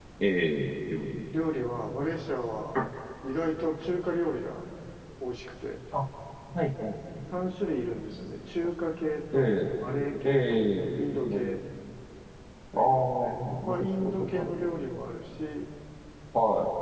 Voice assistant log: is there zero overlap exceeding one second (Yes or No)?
No